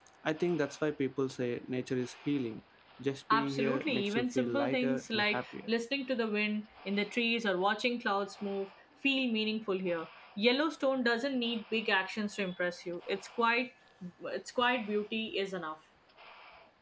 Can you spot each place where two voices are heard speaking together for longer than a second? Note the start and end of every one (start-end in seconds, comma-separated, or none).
3.3-5.4